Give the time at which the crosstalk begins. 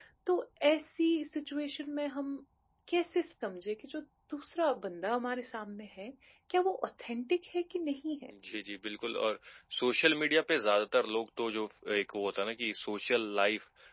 none

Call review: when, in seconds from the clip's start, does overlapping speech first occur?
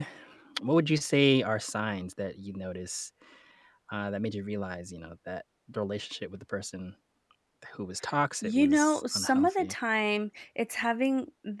8 s

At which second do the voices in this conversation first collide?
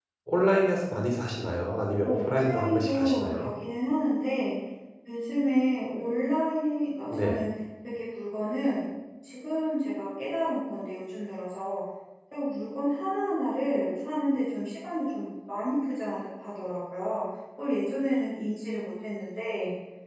2 s

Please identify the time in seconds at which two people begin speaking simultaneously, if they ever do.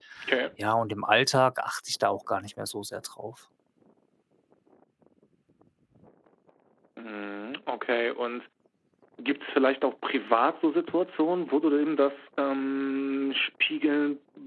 none

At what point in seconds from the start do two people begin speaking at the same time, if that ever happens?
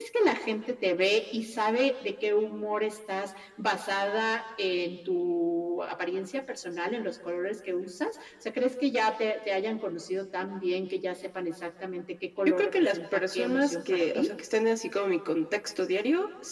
12 s

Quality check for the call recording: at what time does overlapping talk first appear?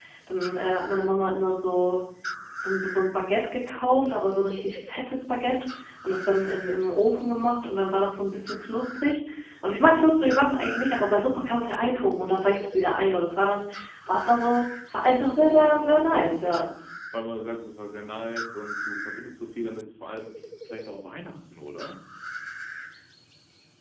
15 s

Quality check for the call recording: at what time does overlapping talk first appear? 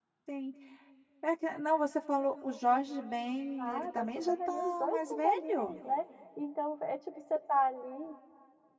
4 s

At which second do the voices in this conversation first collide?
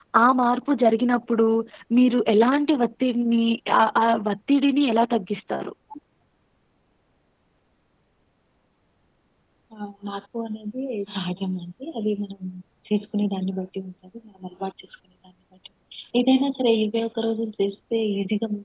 none

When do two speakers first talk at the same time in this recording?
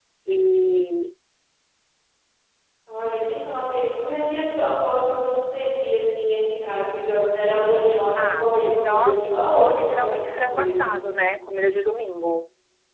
8 s

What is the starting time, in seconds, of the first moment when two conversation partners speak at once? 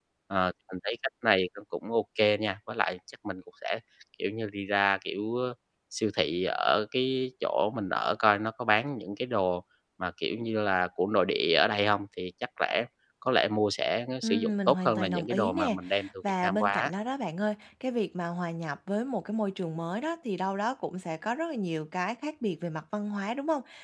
14 s

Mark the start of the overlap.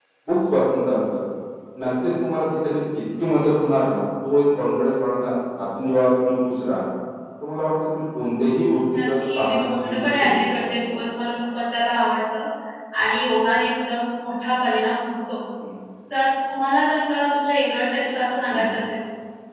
9 s

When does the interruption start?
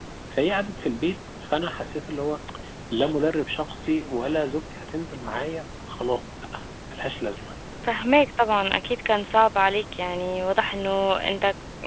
none

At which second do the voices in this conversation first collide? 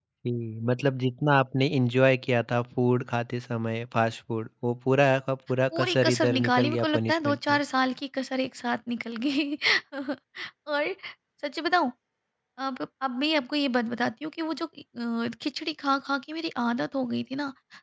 6 s

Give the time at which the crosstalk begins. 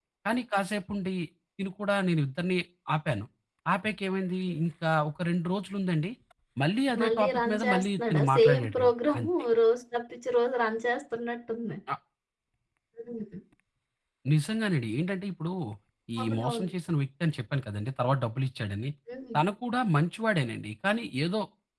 7 s

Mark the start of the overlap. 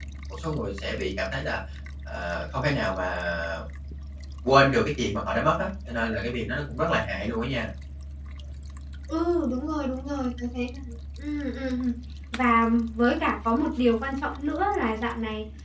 none

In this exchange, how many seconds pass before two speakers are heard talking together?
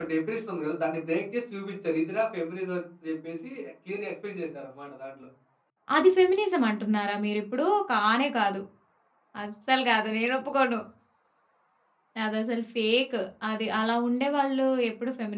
none

